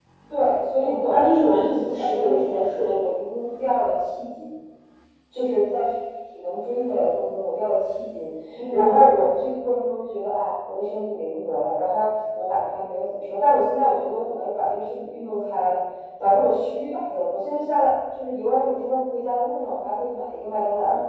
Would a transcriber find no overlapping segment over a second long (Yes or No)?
No